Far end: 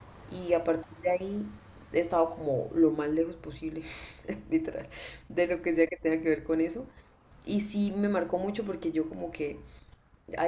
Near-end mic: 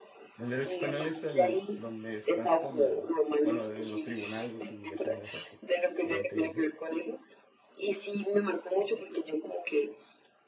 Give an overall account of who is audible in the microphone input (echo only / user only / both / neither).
both